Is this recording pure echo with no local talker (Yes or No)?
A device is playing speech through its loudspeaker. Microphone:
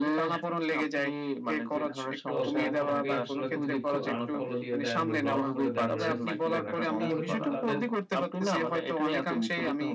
No